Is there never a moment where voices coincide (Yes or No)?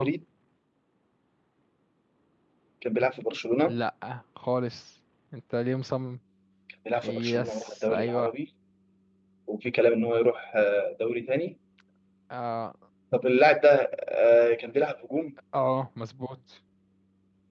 No